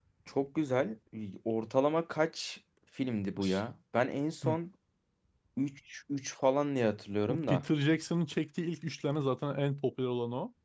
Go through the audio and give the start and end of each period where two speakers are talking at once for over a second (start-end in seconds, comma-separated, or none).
none